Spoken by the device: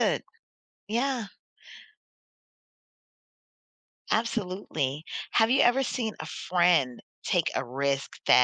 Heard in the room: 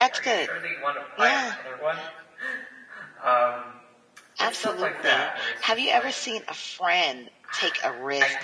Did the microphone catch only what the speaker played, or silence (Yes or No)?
No